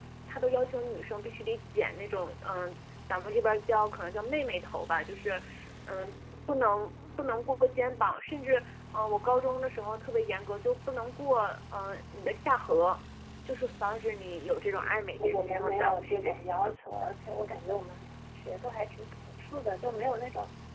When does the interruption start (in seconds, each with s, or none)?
14.7 s